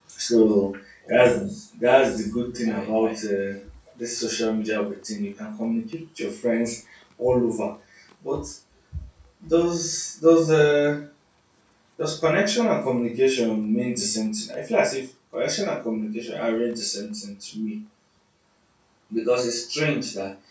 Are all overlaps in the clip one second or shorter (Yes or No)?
No